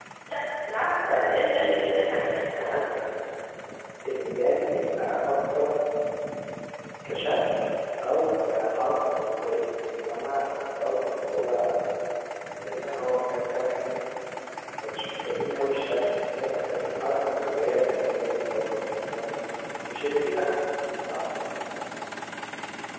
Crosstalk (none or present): present